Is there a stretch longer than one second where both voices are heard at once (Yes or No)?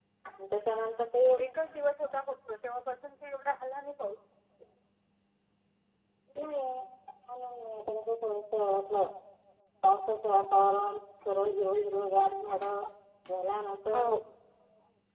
No